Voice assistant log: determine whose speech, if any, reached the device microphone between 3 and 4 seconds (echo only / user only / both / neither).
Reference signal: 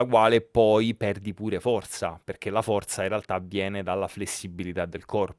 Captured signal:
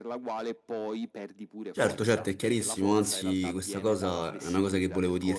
both